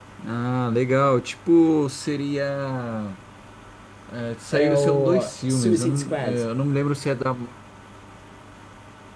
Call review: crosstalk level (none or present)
present